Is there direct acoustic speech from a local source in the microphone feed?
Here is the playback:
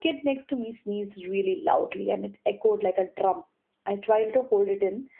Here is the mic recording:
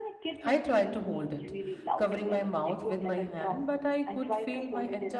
Yes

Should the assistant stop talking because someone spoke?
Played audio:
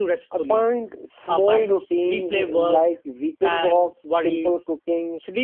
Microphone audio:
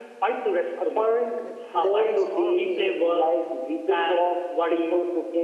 Yes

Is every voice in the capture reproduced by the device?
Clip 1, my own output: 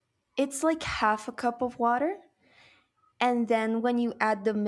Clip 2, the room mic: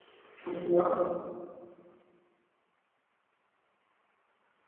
No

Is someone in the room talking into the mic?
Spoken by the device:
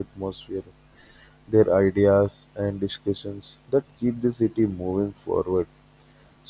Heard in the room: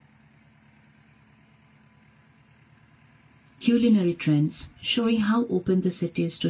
Yes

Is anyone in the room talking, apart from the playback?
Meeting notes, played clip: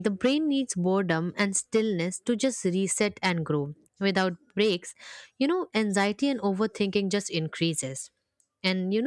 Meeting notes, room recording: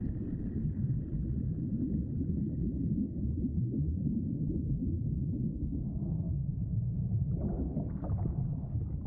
No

